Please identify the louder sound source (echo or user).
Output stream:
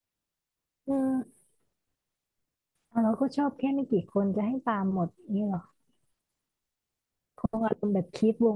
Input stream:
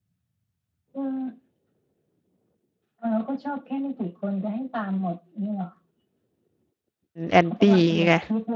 user